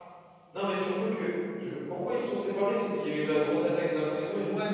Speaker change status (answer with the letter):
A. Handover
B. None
A